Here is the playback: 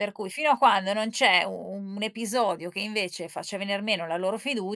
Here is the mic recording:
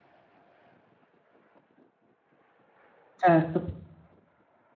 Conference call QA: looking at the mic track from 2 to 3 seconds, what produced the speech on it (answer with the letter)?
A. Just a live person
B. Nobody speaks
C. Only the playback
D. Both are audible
B